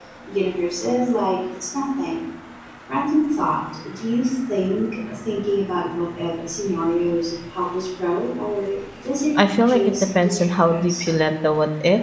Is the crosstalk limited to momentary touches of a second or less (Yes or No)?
No